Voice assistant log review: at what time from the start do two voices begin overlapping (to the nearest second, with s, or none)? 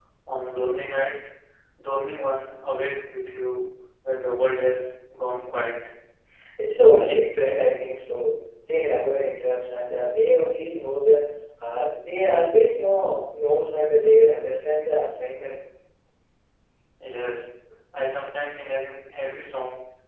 none